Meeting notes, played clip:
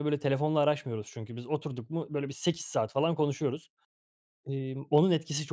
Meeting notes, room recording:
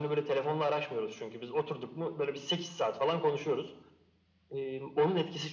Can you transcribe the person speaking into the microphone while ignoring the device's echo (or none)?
none